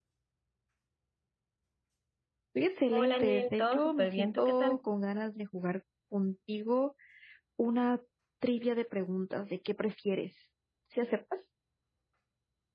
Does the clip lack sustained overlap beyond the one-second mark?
No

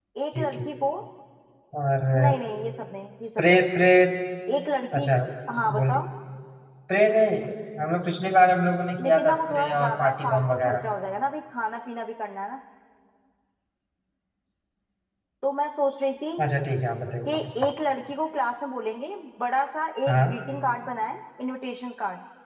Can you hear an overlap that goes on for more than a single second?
Yes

